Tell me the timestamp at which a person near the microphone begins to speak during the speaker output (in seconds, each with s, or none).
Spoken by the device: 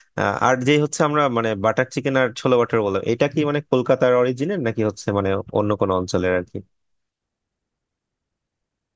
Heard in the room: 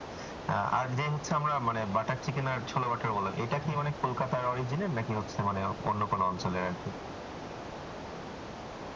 none